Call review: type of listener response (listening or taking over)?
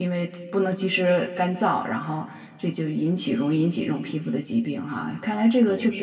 listening